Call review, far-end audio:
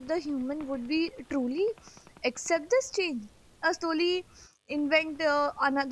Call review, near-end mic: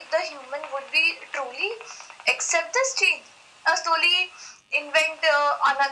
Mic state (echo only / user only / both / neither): echo only